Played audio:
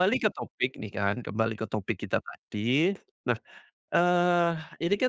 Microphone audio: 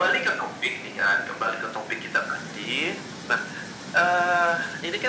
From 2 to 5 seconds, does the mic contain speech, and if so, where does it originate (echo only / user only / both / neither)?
echo only